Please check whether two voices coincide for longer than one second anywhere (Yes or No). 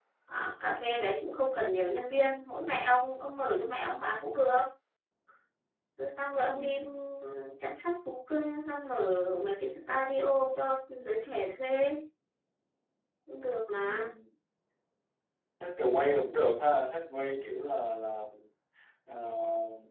No